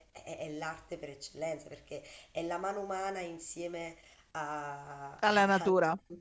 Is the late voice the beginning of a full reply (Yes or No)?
No